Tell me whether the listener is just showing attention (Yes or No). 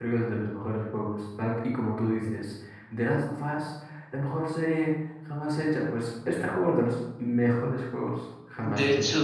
No